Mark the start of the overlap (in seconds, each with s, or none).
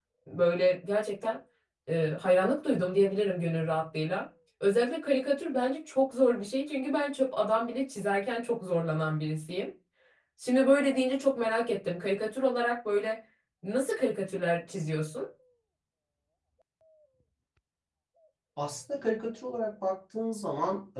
none